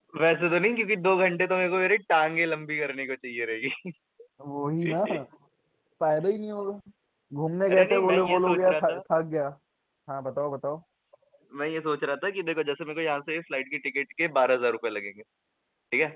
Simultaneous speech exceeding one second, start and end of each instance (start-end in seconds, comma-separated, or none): 7.7-9.0